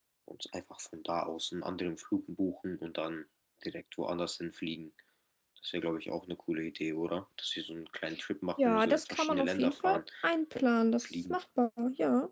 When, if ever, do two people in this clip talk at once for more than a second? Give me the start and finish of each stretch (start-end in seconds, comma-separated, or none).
8.6-10.0